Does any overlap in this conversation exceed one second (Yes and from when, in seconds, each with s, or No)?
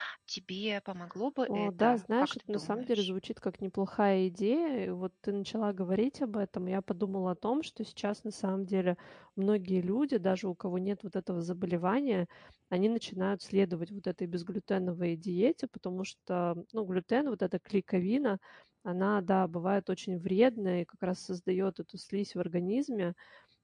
Yes, from 1.5 s